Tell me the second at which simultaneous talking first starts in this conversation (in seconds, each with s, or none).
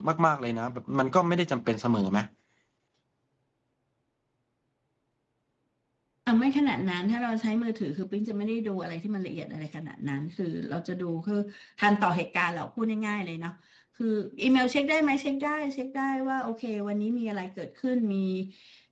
none